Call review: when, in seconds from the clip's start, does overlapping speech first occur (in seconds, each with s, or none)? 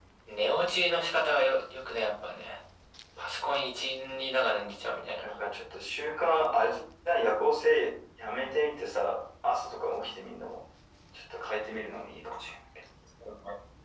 none